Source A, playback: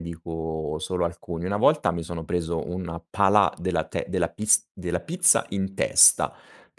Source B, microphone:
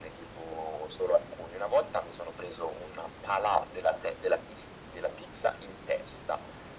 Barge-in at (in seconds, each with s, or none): none